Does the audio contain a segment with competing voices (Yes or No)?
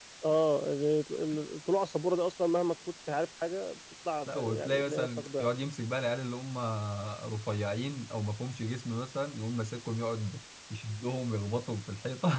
Yes